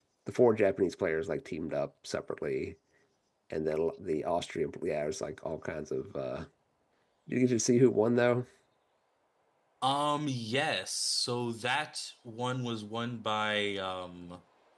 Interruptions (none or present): none